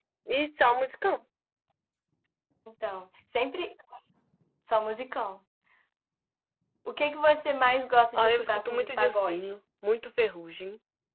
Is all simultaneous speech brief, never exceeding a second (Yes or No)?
No